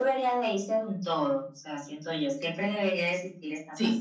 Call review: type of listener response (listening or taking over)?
listening